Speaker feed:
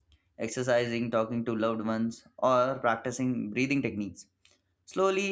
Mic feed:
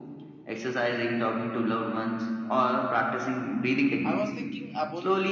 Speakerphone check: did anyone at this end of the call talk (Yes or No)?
Yes